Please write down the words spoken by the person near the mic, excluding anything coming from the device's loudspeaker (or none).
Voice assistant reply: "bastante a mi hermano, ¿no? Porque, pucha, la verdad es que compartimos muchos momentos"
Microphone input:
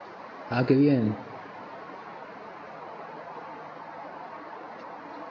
Ah, qué bien.